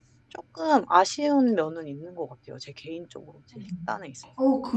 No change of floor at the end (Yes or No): No